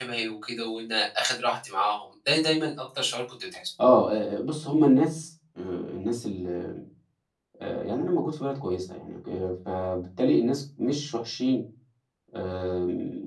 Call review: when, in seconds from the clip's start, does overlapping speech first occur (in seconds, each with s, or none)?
none